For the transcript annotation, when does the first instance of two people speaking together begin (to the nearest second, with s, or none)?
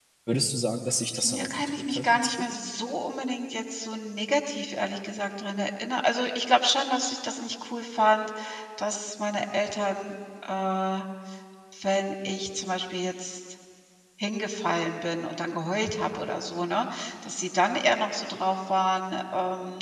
1 s